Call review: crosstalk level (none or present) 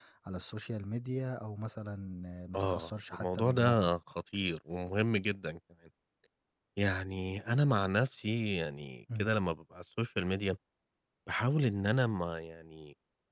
present